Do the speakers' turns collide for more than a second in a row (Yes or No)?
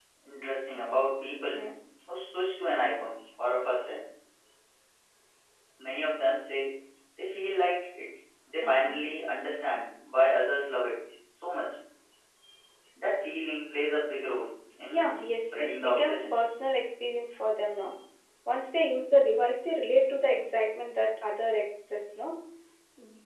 Yes